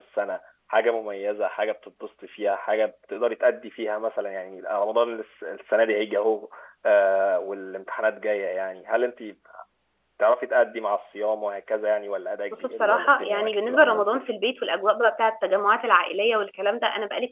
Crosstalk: present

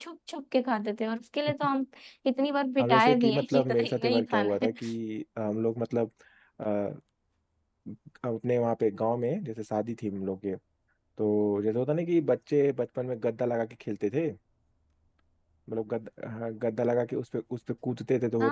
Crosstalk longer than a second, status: present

